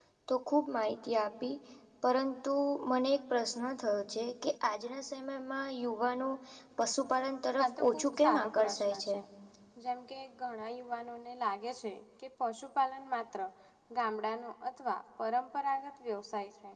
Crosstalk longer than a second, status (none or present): present